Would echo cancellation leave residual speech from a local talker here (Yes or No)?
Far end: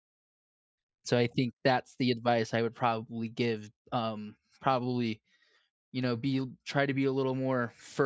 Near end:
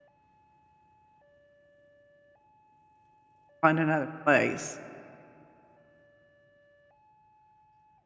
Yes